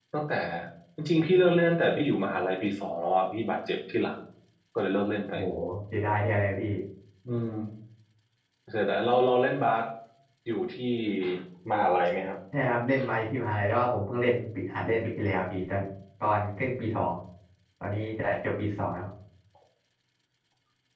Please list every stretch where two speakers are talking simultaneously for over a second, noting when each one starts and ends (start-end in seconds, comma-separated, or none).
none